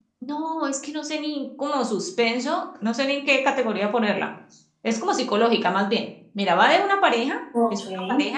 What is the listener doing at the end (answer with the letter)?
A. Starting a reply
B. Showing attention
B